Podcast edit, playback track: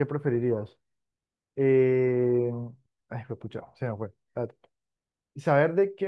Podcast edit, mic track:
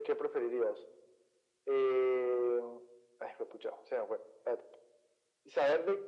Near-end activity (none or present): none